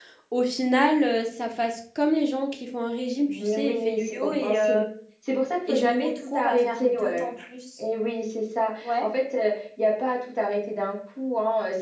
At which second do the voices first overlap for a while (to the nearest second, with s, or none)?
3 s